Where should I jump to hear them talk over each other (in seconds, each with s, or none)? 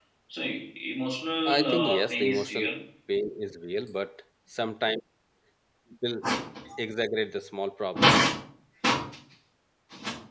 1.4 s